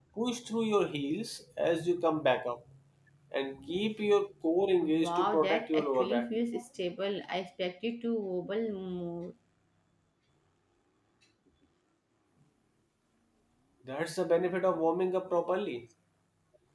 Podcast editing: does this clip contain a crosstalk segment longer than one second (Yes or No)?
Yes